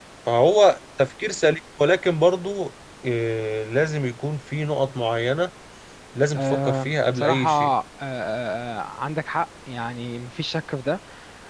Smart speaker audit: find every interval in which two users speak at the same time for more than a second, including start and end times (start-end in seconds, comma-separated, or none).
6.4-7.7